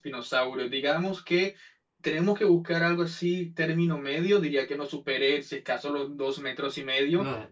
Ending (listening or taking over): listening